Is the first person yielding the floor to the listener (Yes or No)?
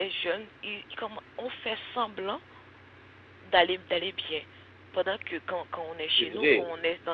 No